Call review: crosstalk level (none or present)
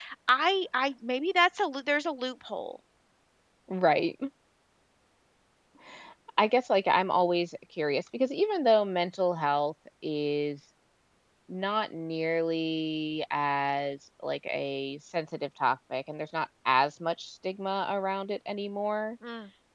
none